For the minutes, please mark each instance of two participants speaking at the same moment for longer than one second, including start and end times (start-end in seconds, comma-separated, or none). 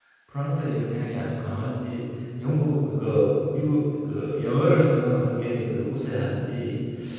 none